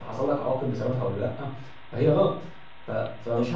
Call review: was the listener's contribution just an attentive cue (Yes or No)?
Yes